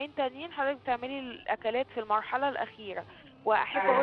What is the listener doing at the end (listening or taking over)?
listening